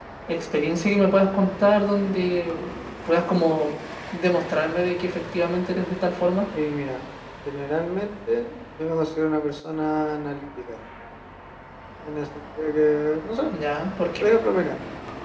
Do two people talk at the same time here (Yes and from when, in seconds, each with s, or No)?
No